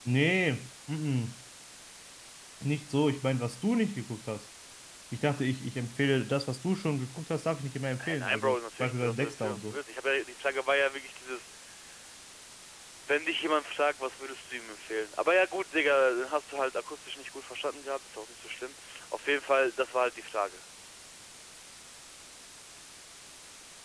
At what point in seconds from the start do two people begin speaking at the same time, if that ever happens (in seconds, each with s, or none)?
8.0 s